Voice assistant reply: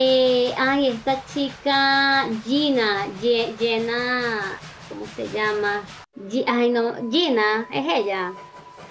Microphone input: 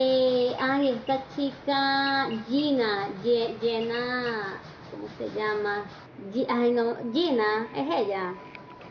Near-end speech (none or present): none